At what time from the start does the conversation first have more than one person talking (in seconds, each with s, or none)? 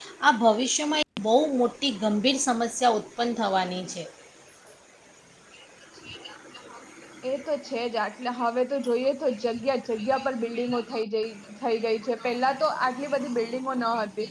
none